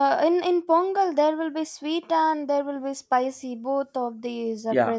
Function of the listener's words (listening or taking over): taking over